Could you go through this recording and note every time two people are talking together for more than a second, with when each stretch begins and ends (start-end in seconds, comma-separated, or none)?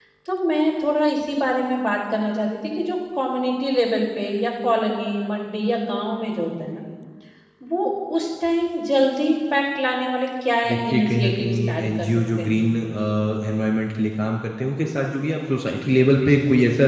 10.7-12.7